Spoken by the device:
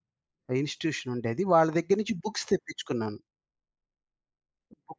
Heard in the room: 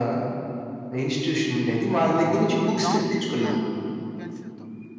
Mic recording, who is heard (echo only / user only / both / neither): both